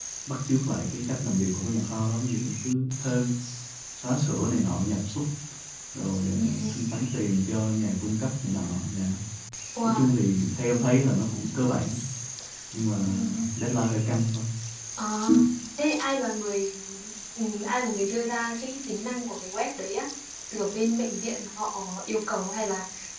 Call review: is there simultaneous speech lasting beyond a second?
No

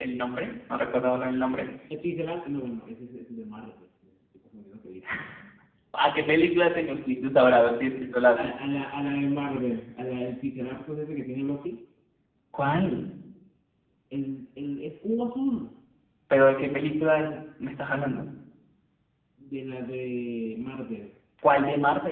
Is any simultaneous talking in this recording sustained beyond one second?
No

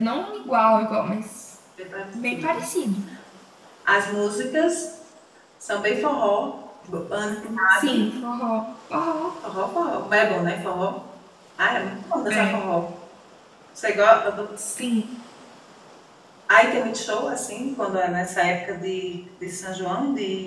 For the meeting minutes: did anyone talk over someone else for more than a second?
No

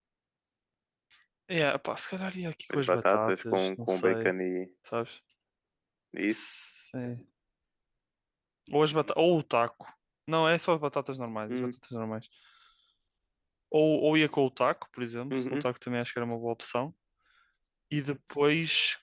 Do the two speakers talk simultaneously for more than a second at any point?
Yes, from 2.7 s

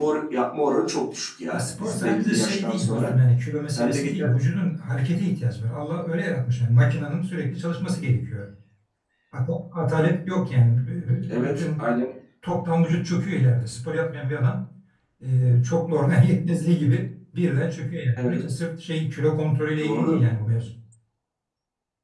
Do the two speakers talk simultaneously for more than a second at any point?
Yes, from 1.5 s

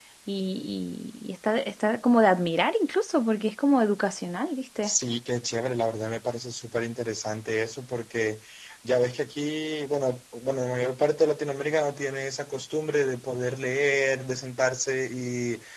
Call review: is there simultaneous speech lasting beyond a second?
No

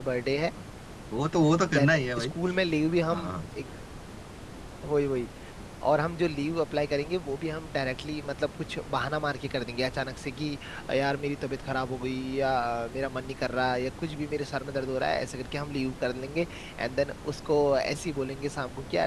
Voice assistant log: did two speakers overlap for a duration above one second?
No

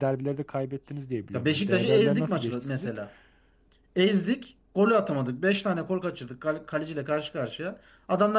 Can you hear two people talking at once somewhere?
Yes, from 1.3 s

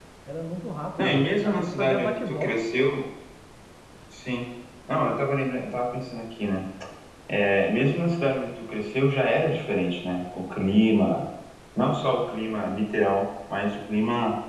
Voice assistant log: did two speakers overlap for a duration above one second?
Yes, from 1.0 s

